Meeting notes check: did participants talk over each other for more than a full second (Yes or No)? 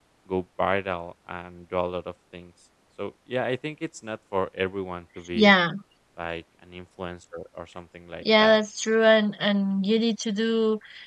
No